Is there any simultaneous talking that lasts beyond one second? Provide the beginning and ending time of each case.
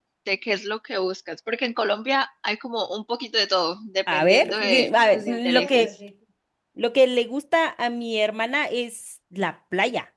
4.1-5.9

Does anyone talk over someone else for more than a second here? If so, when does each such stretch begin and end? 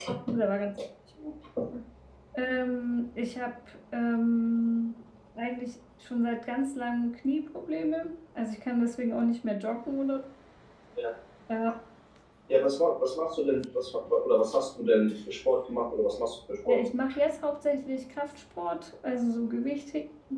none

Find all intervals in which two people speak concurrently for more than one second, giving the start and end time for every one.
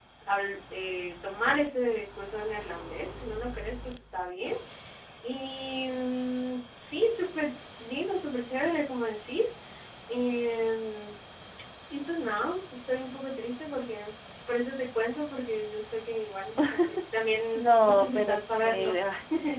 17.6-18.9

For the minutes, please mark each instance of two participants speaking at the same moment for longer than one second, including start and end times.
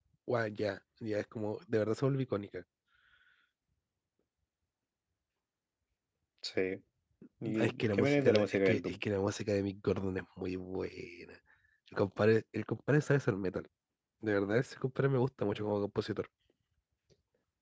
7.6-9.0

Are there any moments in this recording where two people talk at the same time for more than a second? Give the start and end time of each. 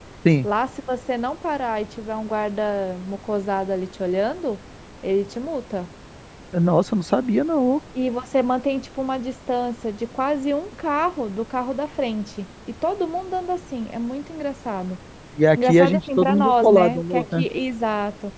15.6-17.5

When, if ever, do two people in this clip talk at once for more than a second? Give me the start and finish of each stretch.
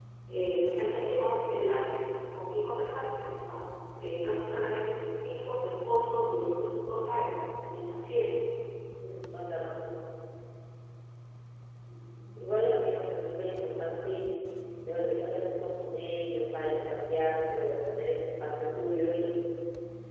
none

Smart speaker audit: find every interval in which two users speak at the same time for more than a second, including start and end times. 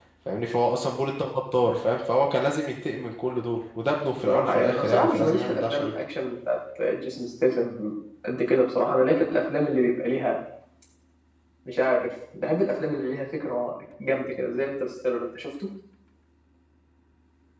4.2-5.9

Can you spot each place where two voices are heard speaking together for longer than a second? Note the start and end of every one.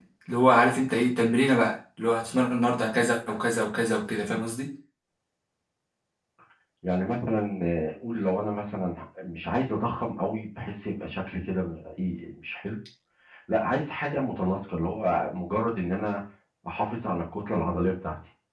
none

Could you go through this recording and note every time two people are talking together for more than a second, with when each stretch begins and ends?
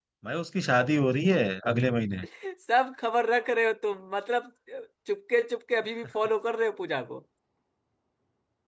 none

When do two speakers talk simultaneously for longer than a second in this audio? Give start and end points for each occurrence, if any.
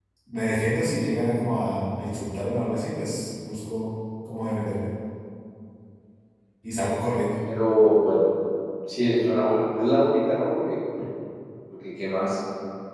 none

